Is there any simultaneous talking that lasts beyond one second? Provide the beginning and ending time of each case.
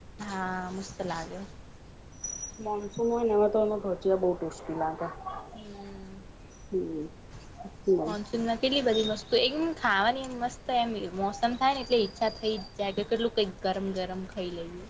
none

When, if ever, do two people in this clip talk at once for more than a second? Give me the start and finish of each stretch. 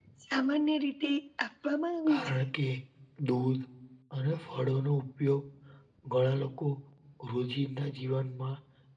none

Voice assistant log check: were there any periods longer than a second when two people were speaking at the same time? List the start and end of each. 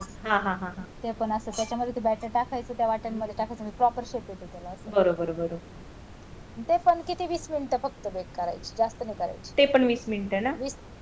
none

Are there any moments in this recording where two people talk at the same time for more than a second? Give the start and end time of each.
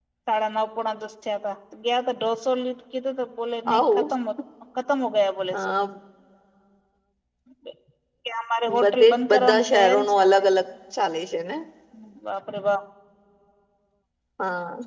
8.8-10.4

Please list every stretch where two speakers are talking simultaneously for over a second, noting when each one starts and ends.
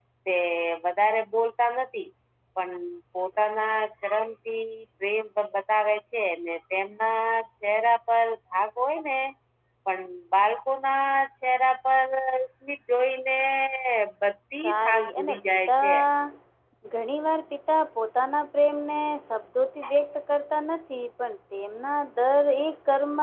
14.6-15.9

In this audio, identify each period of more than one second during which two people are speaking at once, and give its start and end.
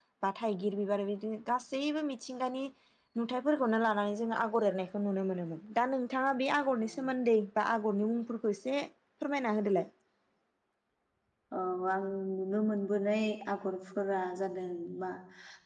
none

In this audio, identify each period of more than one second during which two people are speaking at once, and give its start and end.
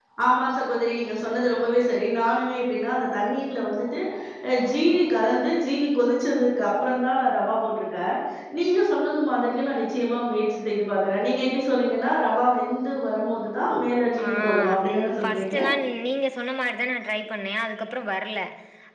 14.3-15.6

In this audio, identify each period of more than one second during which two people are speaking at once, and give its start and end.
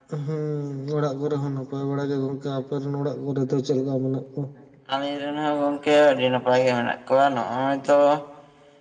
none

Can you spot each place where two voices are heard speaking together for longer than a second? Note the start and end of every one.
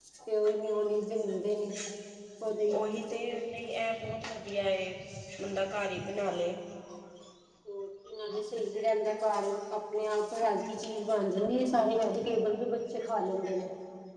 none

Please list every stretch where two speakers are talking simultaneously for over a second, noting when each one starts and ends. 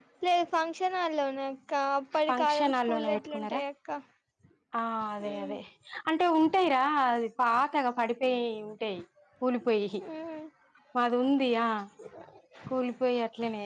2.3-3.6

